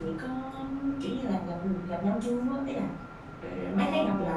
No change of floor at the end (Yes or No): No